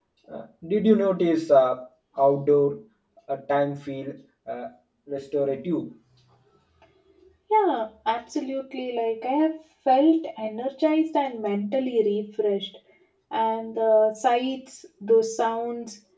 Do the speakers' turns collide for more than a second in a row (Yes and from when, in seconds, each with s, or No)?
No